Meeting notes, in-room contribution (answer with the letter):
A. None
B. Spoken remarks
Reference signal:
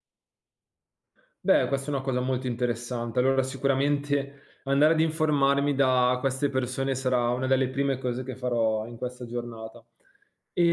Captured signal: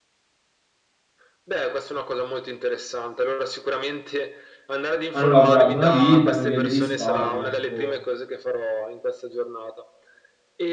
B